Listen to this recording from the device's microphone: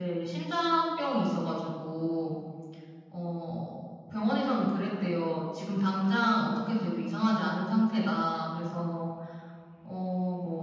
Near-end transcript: none

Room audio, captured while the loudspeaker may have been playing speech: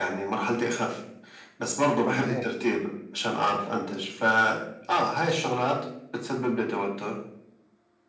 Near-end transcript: هم هيك.

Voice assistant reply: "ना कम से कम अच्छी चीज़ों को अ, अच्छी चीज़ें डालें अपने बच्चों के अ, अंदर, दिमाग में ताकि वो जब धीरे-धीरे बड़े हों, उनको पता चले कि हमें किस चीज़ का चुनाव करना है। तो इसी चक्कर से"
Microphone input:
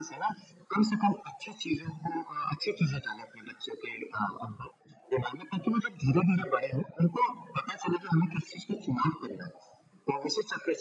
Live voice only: none

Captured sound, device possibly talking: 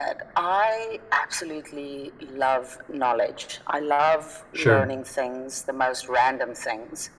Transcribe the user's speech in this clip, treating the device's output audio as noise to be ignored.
sure.

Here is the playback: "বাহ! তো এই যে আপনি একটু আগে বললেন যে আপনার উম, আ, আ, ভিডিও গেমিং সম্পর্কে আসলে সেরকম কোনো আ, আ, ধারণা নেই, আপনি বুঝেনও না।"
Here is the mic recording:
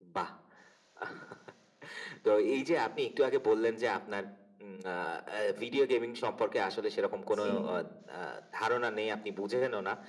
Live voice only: জি, জি,

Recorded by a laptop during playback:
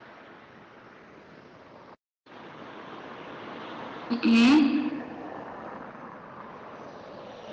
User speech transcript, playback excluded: Mhm.

